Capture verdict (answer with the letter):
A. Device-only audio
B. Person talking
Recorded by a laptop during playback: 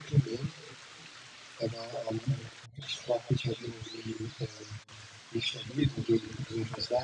A